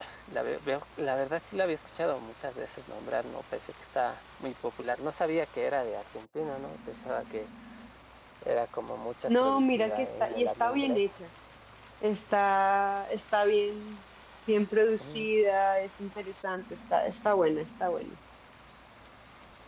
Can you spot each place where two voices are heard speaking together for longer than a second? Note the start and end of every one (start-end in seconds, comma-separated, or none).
9.3-11.1